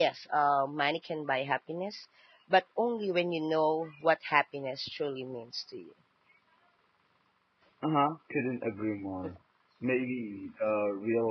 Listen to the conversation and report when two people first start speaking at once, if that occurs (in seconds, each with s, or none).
none